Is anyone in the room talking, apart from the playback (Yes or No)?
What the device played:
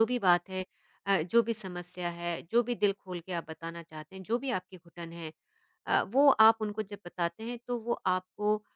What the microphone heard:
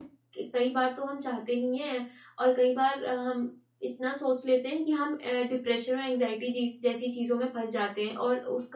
Yes